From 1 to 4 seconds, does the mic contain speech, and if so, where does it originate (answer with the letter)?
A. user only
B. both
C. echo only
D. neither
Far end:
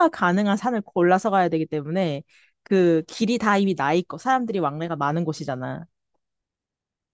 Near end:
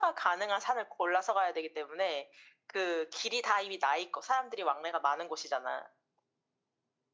C